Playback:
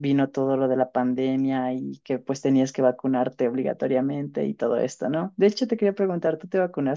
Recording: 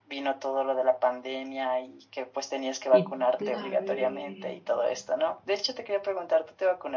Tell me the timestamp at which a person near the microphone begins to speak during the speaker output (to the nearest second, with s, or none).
3 s